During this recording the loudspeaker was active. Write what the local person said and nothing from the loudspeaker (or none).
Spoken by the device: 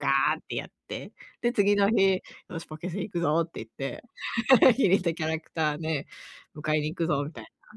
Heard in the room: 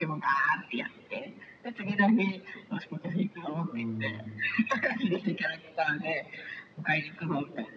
うん。